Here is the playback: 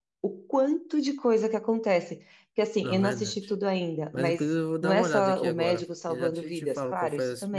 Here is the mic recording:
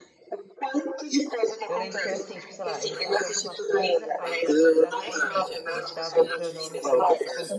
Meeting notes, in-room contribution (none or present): present